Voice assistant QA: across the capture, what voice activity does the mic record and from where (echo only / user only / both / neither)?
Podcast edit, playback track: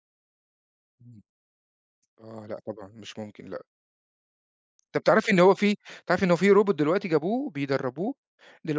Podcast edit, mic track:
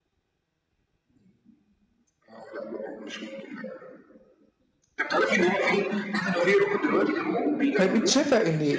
both